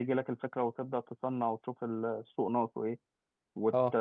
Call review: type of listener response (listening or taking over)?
listening